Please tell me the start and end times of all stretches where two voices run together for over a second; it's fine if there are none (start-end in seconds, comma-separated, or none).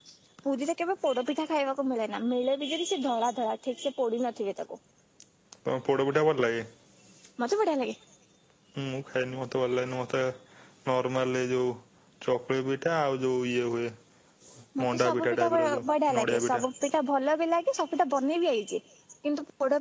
14.8-16.6